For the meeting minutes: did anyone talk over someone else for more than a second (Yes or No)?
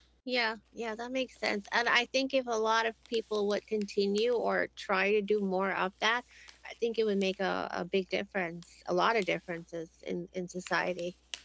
No